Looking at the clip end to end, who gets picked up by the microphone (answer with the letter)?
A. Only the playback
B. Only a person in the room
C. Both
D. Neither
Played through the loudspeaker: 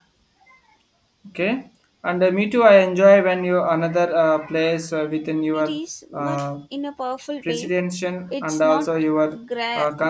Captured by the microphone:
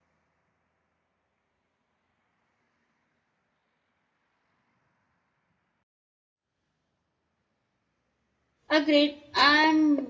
B